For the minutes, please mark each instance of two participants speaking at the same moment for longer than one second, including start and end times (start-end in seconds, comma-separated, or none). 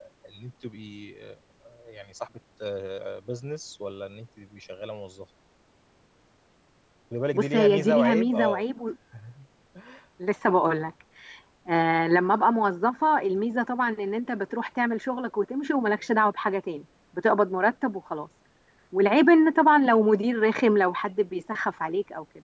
7.3-8.6